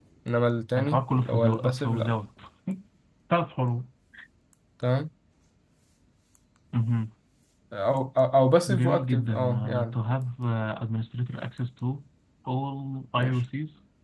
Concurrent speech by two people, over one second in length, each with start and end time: 0.8-2.1, 8.7-10.0

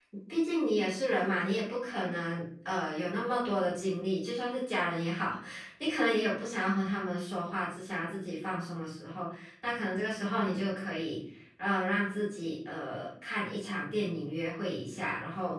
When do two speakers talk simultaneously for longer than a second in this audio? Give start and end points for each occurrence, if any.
none

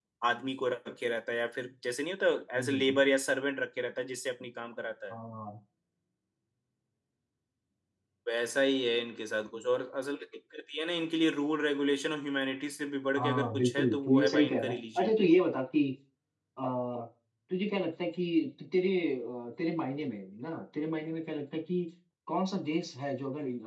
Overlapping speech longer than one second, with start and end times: 13.2-15.2

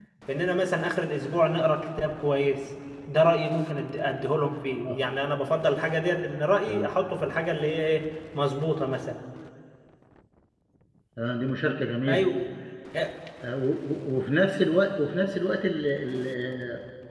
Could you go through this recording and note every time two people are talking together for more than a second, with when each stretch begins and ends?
none

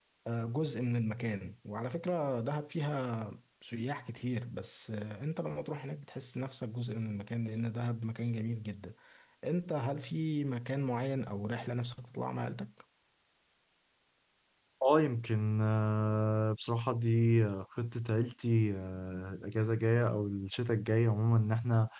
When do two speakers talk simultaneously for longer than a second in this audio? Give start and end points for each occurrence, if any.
none

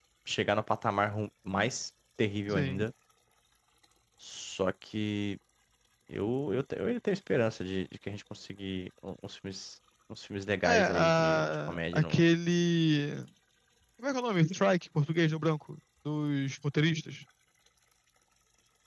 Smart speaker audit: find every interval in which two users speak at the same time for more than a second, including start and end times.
10.6-12.2

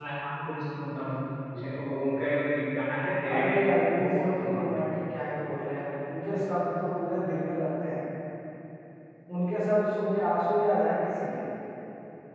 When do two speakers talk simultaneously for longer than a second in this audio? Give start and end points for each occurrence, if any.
3.3-4.8

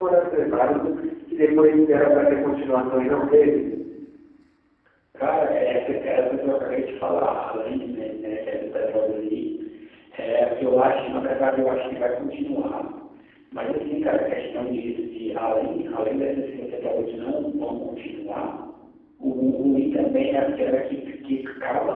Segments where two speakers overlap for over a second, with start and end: none

